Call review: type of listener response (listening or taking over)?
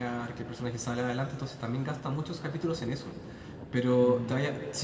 listening